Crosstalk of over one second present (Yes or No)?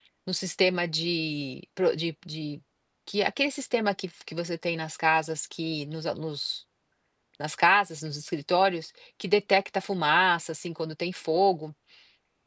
No